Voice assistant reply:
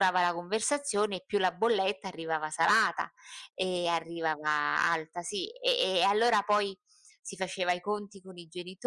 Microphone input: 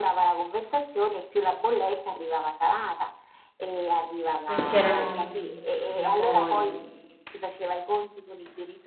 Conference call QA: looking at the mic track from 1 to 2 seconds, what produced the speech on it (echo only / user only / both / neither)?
echo only